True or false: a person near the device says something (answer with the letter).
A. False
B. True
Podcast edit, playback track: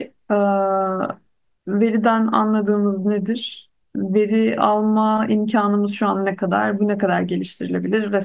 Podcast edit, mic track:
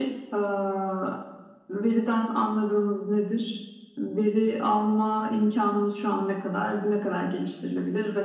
A